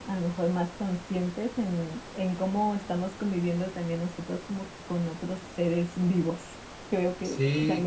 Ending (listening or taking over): taking over